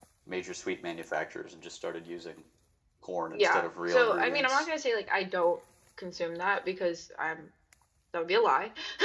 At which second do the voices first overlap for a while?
3.3 s

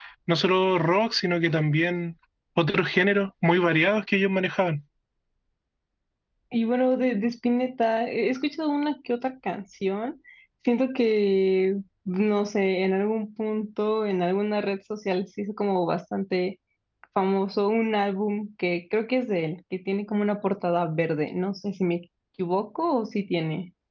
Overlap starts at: none

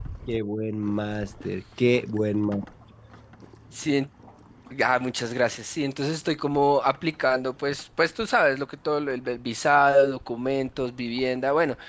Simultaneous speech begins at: none

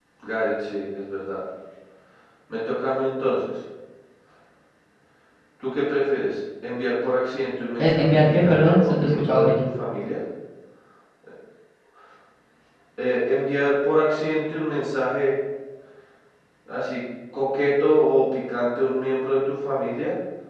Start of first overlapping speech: 7.8 s

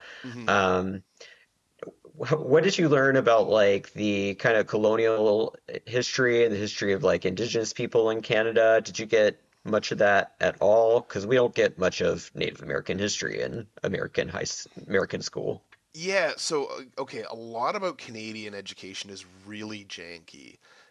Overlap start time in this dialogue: none

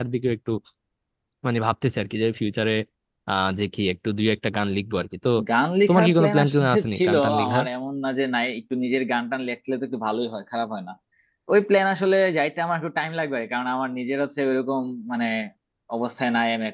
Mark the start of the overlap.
5.9 s

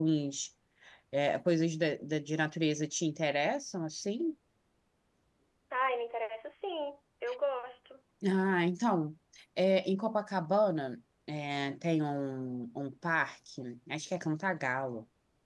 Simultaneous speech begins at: none

